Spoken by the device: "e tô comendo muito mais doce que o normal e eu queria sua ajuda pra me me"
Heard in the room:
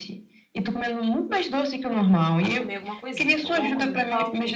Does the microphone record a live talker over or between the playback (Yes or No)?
Yes